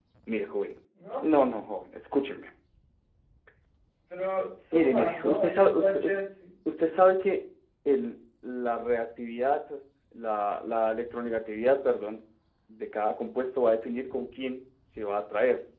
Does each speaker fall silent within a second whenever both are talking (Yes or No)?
No